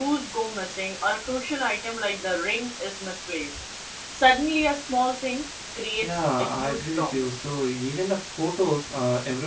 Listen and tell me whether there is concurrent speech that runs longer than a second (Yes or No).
Yes